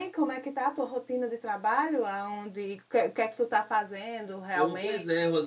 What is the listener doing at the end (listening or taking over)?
taking over